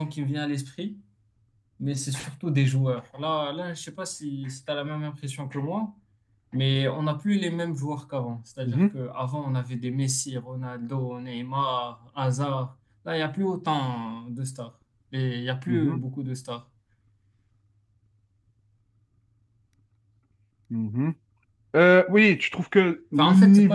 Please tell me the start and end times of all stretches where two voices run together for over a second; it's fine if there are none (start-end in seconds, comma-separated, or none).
none